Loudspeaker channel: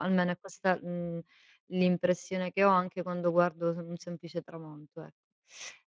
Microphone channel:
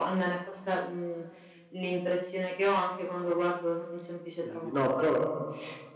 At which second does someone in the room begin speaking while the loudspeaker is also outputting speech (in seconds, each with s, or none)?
4.4 s